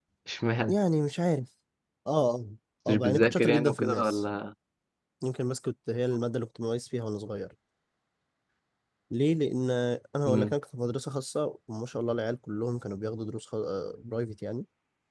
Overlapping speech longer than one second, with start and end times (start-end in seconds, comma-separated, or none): 2.9-4.2